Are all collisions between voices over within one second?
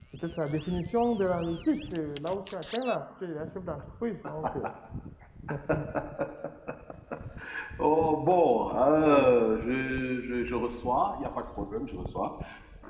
Yes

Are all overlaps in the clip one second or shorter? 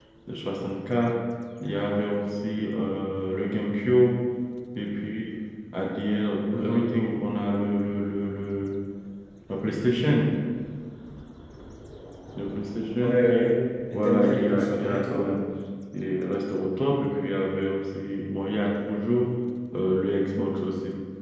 No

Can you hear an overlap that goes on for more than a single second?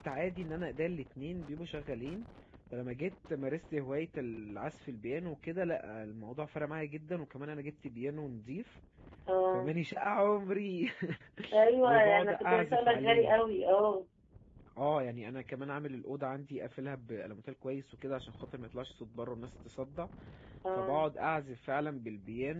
Yes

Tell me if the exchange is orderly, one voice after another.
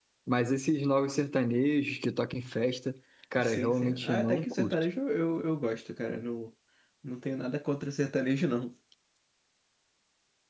No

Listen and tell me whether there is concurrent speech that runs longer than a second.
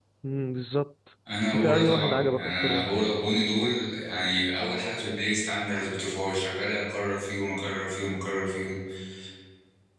Yes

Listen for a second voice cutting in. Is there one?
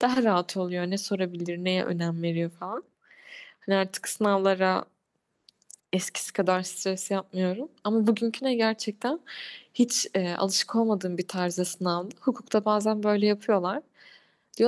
No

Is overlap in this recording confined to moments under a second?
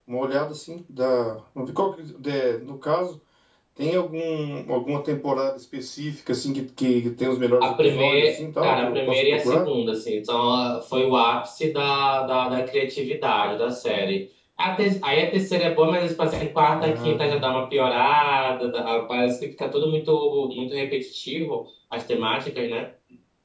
No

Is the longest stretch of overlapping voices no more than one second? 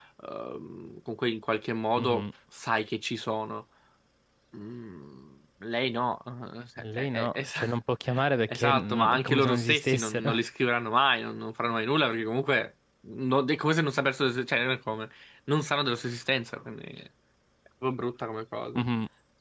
No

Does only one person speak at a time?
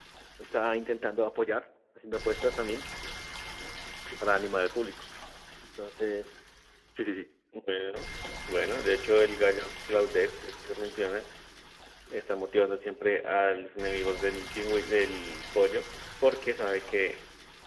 Yes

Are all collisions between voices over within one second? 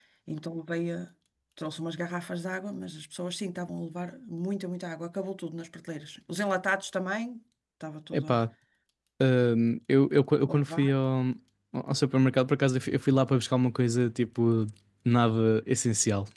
Yes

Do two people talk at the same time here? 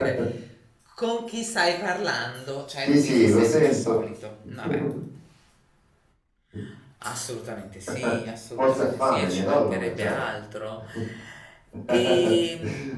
Yes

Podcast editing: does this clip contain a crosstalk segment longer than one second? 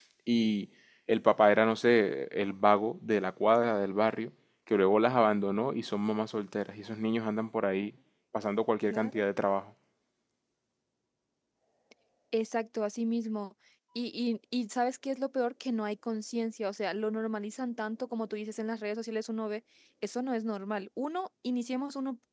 No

